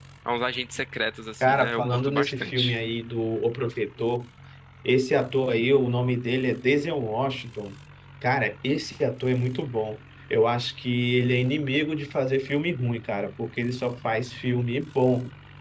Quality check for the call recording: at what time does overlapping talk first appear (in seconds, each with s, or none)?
1.4 s